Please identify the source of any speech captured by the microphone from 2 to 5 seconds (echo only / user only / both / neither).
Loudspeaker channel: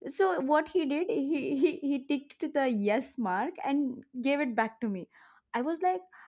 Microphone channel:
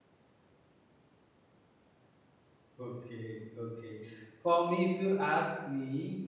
user only